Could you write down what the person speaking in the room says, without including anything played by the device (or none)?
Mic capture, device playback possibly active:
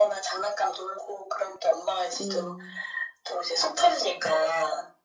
음,